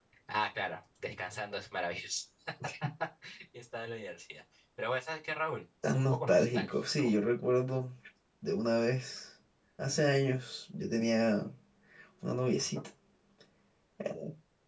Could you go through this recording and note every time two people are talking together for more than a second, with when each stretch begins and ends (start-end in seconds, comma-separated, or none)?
5.8-7.1